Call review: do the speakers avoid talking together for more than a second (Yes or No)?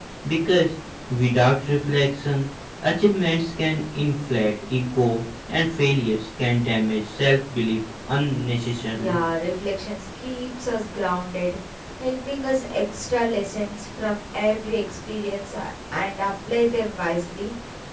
Yes